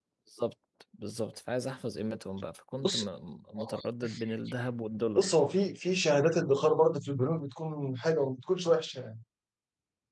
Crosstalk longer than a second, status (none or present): none